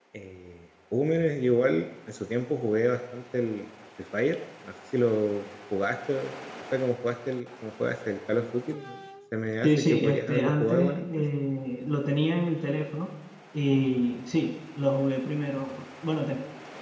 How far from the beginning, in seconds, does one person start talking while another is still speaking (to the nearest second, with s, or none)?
10 s